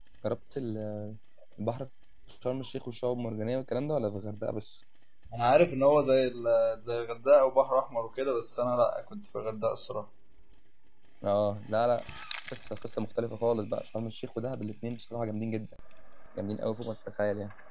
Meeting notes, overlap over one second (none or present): none